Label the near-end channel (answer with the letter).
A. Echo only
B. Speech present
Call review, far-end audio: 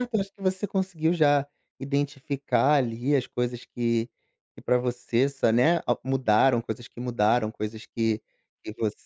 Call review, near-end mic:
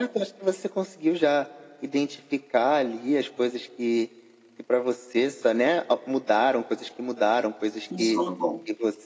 B